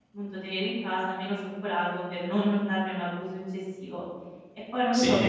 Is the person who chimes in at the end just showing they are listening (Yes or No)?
No